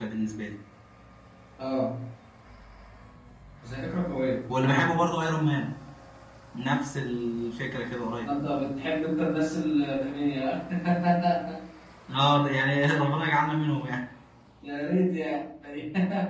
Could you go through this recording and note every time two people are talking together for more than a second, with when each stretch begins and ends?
none

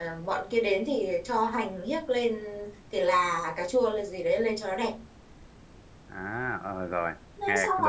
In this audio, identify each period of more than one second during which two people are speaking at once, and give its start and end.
none

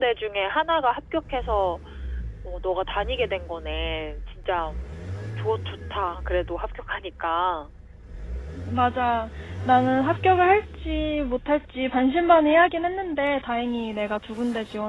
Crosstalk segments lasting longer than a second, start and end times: none

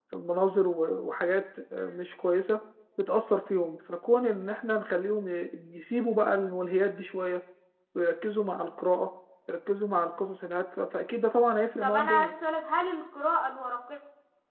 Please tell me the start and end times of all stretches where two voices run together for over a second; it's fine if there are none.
none

